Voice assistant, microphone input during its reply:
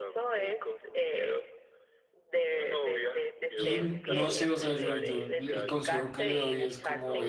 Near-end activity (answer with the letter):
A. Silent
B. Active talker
B